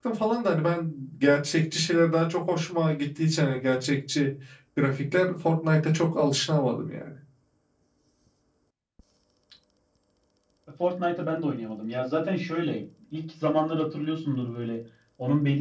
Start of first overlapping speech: none

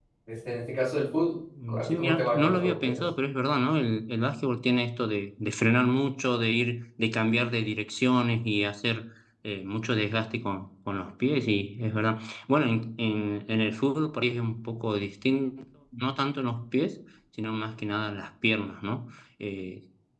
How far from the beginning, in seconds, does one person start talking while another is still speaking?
2 s

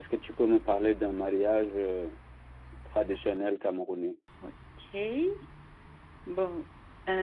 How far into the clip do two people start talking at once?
none

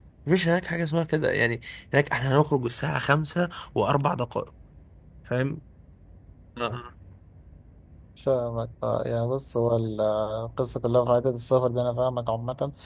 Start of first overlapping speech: none

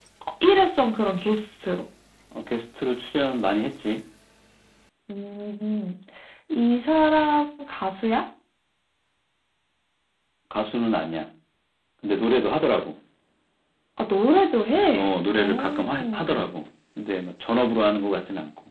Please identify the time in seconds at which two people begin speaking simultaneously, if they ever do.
15 s

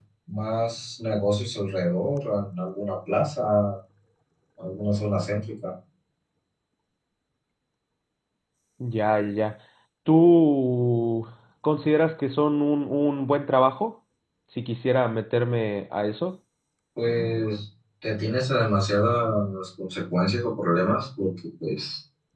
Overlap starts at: none

